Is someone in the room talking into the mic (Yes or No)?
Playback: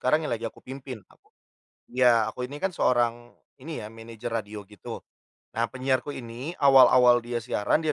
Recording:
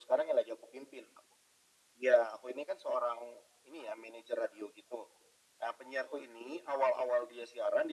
No